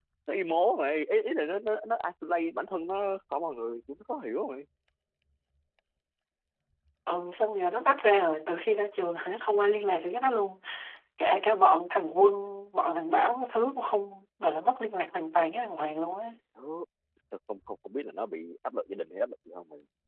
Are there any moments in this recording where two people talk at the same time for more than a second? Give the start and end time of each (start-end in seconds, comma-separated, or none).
none